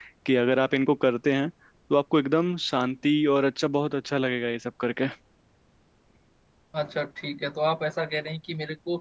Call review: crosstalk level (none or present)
none